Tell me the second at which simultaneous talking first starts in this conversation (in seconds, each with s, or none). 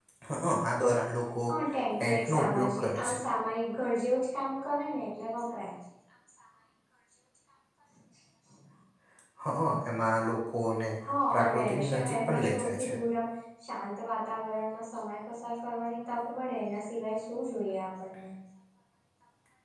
2.0 s